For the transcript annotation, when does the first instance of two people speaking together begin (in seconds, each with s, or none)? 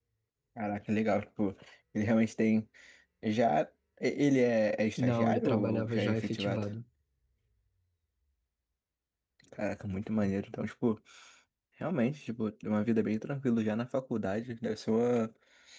5.0 s